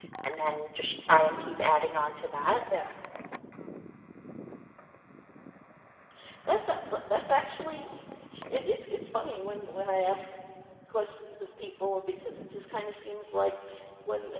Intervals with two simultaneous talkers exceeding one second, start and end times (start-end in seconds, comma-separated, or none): none